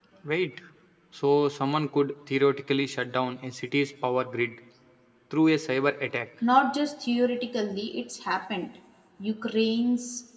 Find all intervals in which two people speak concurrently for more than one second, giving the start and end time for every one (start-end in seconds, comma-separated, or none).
none